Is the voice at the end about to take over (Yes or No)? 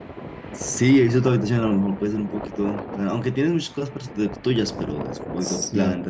Yes